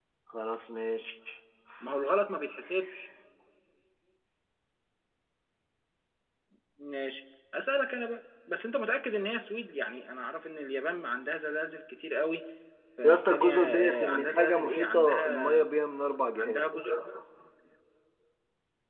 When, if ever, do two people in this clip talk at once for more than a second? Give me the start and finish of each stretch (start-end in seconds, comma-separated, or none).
13.0-15.7